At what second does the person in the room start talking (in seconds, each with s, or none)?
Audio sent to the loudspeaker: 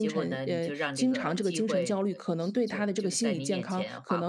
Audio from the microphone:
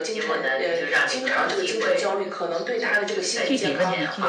3.2 s